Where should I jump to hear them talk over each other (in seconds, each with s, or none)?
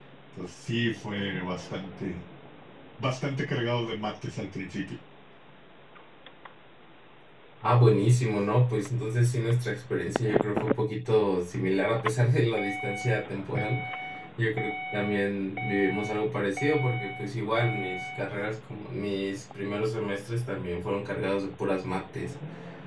none